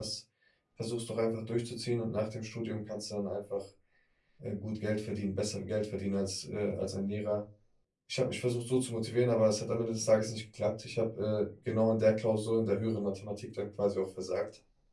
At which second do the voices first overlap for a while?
none

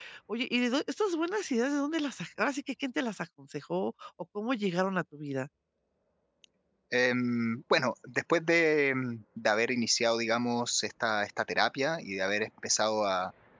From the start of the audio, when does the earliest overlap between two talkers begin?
none

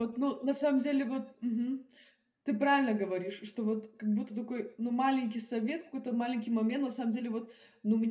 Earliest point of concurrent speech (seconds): none

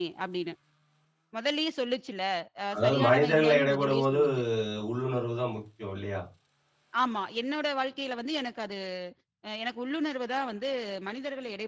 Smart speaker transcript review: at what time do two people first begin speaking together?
2.8 s

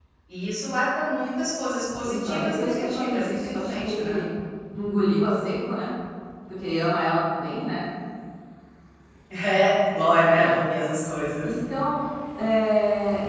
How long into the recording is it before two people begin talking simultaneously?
2.0 s

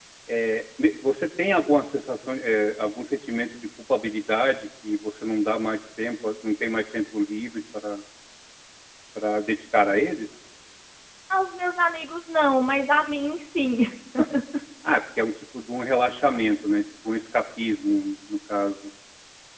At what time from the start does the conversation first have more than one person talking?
none

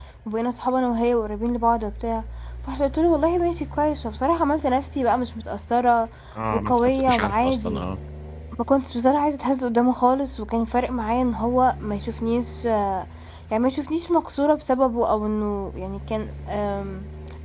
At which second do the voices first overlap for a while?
6.5 s

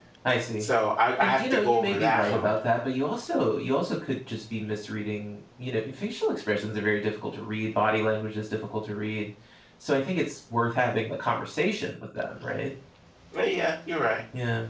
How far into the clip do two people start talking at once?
1.2 s

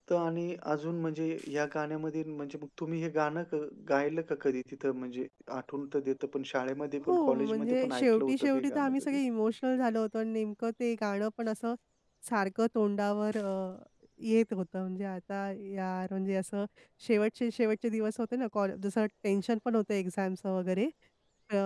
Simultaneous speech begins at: 7.0 s

